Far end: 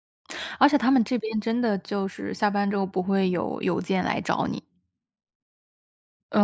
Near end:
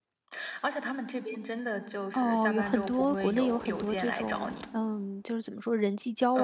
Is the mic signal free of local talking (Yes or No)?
No